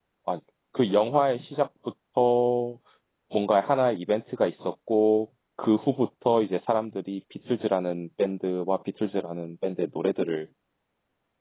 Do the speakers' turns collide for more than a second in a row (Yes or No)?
No